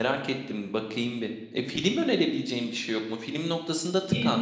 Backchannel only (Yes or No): Yes